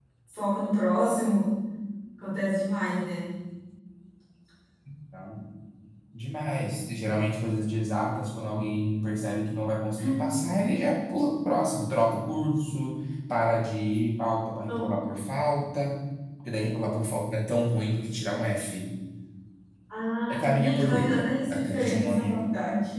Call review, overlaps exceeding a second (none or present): present